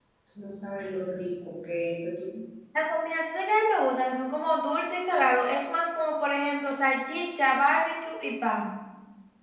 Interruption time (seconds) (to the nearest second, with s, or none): none